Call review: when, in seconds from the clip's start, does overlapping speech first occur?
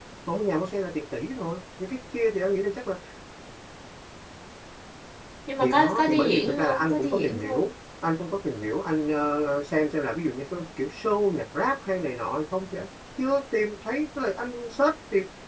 5.6 s

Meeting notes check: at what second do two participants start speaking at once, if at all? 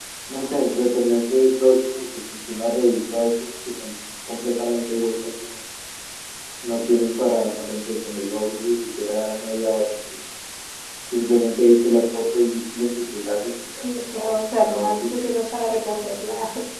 13.7 s

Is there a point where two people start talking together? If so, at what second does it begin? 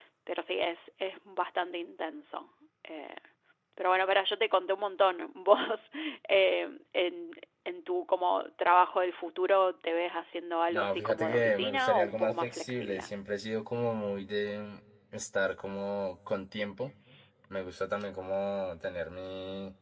10.7 s

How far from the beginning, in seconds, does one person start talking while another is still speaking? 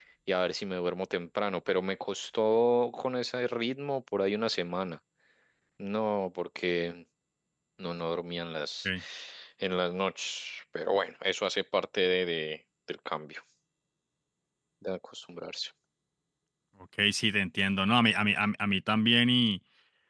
none

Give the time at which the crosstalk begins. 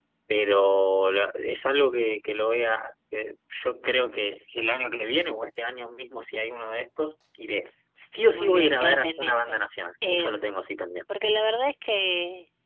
8.3 s

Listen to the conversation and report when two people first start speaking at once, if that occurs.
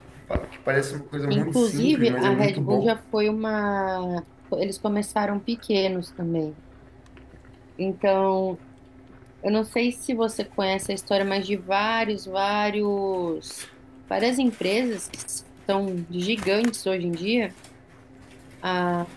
1.3 s

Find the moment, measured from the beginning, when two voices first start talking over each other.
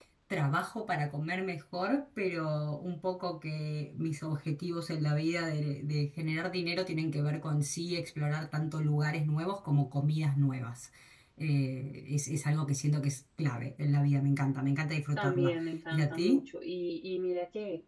15.2 s

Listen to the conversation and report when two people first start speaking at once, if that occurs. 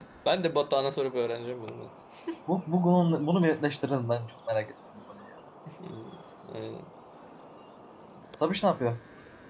none

